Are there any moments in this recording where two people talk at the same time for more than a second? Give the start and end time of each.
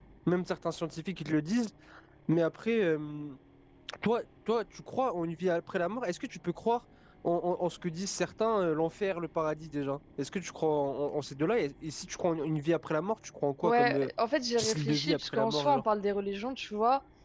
14.6-15.8

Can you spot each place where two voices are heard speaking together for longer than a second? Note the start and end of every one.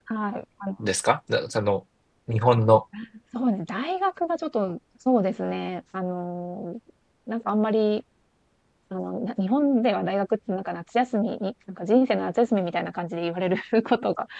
none

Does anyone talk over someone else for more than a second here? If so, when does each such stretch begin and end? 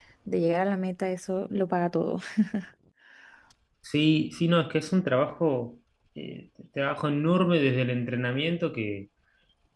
none

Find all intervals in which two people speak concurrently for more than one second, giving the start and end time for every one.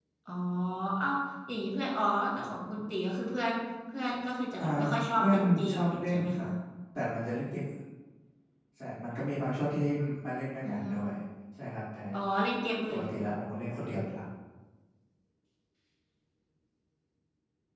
5.2-6.5

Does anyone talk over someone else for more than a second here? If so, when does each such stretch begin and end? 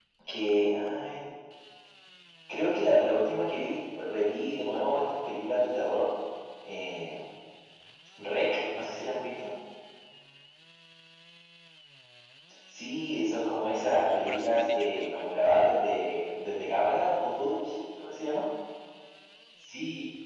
13.7-15.4

